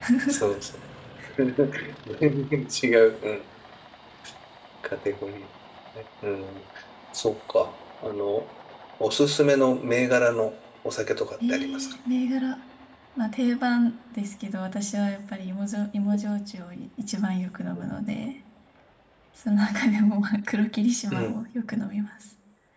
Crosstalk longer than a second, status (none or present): none